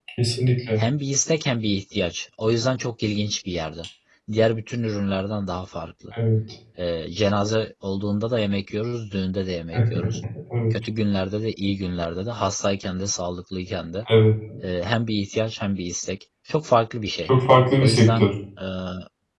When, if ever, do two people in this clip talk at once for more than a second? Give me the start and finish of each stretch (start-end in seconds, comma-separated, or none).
none